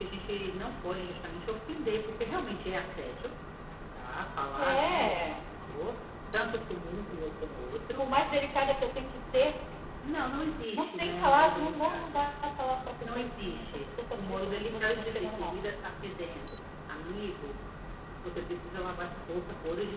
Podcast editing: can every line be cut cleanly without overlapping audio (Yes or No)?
No